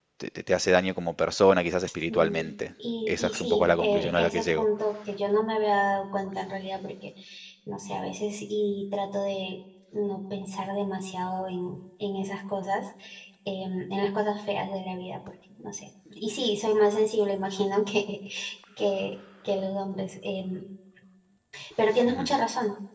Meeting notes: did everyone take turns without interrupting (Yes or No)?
No